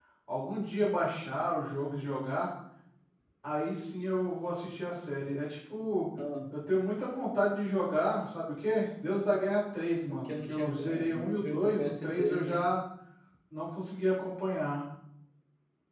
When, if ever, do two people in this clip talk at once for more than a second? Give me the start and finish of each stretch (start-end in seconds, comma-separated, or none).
10.1-12.7